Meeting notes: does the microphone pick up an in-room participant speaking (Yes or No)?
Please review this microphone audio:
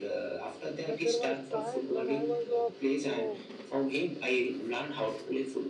Yes